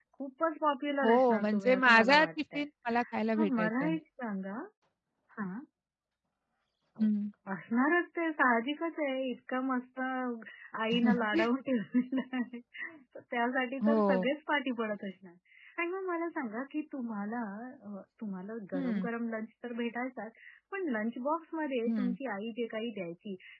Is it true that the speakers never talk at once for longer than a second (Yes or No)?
No